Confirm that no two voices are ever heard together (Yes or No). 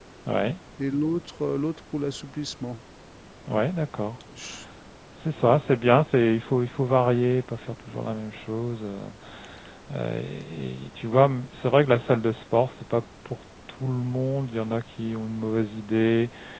Yes